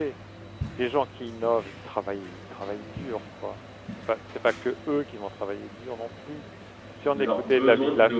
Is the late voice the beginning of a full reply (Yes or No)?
Yes